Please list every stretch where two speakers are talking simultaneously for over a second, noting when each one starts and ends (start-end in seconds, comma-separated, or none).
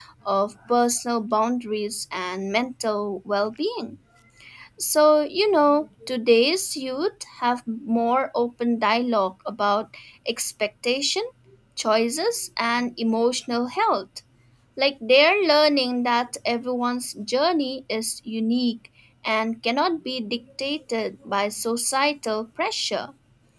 none